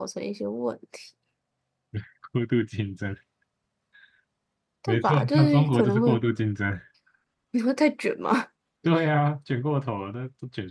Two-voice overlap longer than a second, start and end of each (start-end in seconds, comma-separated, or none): 4.9-6.2